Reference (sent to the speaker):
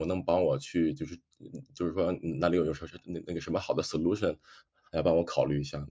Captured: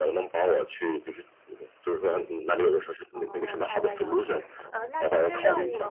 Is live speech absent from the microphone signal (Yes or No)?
No